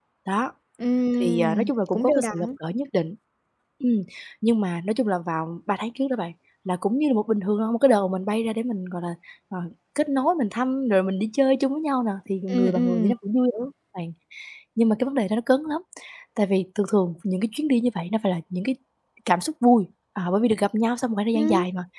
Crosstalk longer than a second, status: present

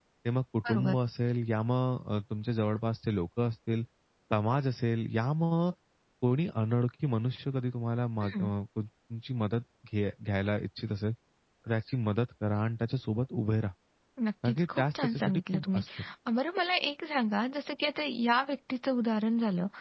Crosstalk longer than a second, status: present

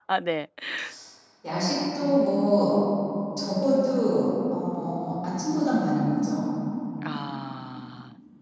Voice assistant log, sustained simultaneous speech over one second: none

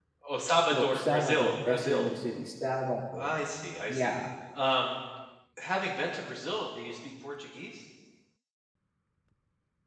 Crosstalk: present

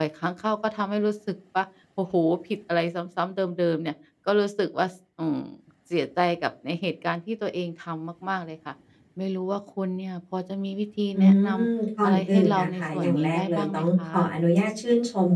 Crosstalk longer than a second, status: present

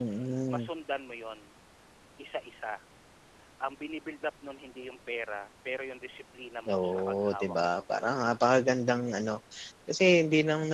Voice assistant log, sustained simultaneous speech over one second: present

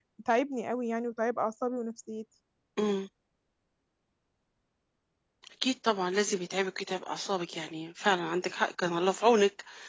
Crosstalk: none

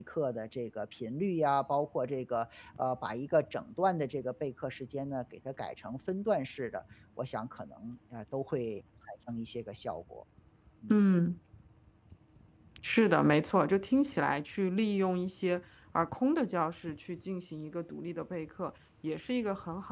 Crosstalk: none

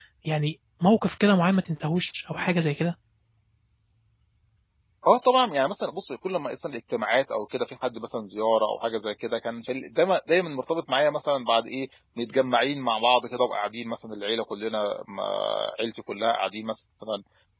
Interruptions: none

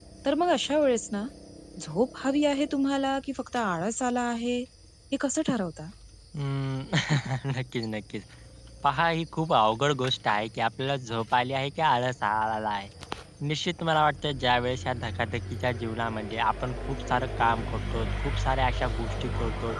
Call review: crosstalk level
none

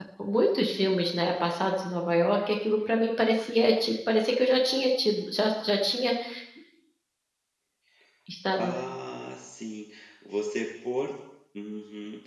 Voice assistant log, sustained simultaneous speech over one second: none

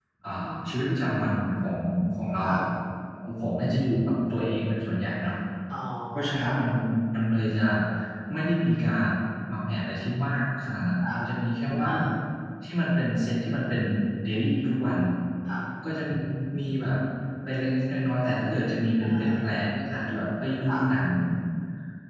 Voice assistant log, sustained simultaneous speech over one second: none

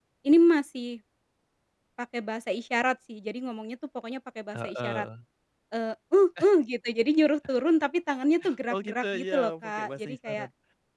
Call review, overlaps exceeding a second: present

